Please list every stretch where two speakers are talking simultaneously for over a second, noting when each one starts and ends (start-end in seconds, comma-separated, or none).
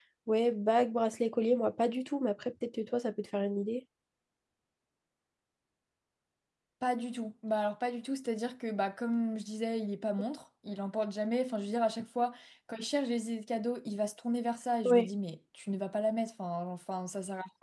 none